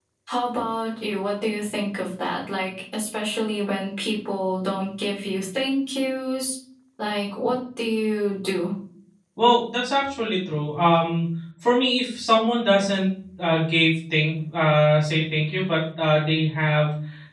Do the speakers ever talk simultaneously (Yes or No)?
No